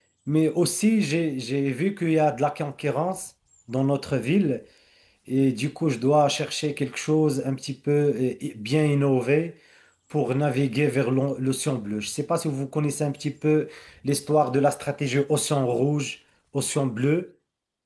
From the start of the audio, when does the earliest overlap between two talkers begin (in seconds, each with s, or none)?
none